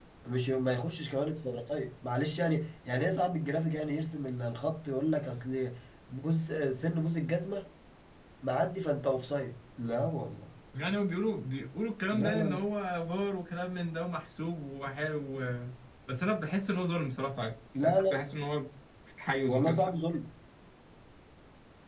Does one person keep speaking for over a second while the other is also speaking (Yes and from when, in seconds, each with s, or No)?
No